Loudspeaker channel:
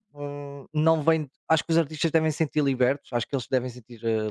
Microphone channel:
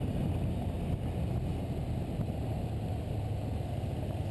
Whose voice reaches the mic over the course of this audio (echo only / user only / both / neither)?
neither